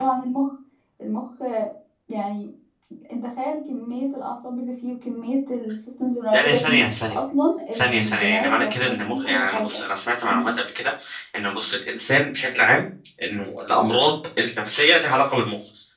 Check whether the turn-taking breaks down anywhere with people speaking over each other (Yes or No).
Yes